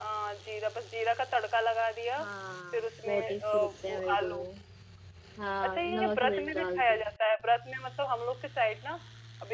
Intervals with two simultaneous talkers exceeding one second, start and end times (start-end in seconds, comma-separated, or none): 2.7-4.5, 5.6-7.0